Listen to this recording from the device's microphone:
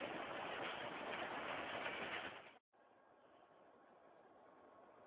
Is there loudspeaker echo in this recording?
No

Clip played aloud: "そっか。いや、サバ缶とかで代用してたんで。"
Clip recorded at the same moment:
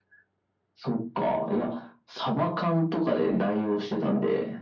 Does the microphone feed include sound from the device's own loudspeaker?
Yes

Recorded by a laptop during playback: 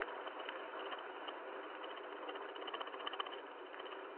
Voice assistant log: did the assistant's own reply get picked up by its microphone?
No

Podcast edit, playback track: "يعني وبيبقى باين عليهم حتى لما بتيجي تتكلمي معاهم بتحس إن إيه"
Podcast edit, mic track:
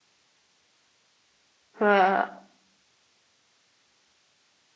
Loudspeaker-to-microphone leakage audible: No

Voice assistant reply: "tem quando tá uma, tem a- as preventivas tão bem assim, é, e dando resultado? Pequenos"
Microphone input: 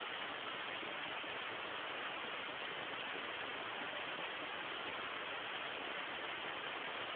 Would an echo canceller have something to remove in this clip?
No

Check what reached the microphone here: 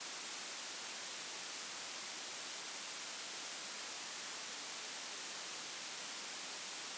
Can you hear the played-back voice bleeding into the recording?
No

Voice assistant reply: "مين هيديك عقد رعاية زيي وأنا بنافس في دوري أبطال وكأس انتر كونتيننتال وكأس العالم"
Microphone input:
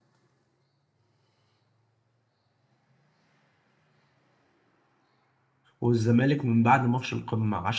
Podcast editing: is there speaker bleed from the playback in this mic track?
No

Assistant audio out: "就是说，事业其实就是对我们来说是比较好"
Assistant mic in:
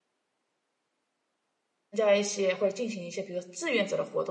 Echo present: No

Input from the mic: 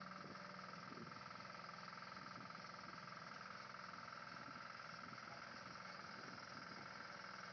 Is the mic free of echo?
Yes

